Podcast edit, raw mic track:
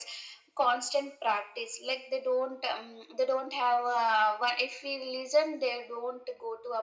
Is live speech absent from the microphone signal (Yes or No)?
Yes